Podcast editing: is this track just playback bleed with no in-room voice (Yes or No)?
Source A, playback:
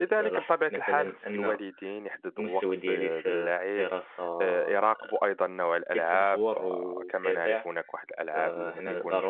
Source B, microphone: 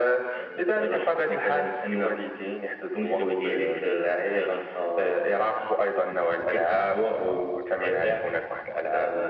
Yes